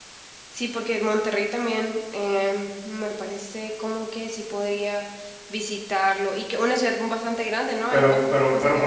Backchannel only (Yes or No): No